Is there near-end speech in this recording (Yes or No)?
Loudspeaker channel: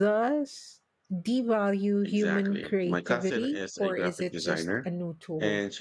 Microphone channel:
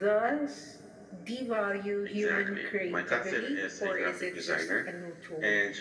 No